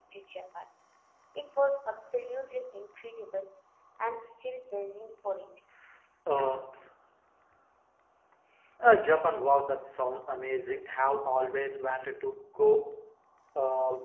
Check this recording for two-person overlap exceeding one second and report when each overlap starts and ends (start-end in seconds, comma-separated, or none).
none